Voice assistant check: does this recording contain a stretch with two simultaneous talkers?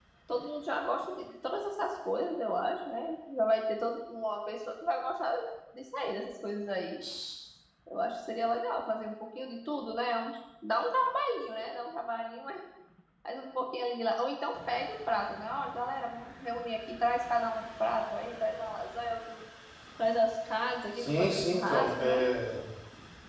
Yes, from 21.0 s

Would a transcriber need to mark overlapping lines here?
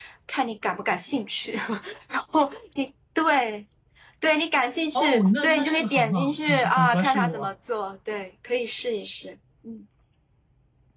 Yes, from 5.0 s

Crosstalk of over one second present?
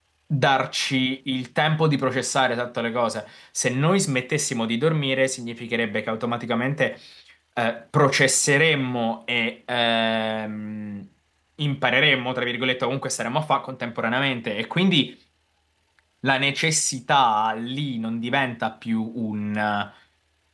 No

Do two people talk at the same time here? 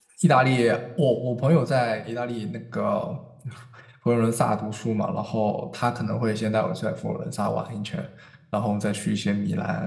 No

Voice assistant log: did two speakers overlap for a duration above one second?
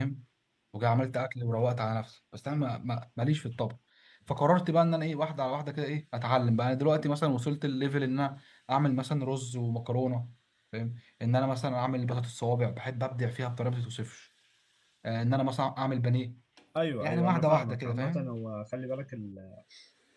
Yes, from 17.0 s

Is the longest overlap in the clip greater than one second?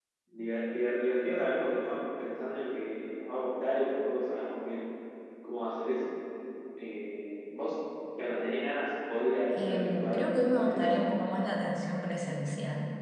Yes, from 9.5 s

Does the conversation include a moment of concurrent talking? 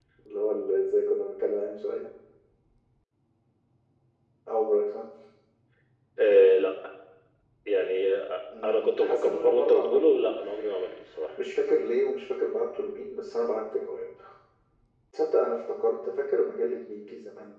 Yes, from 8.6 s

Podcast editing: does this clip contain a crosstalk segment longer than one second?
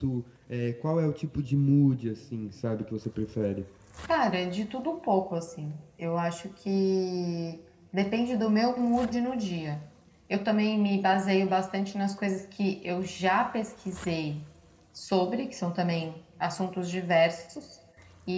No

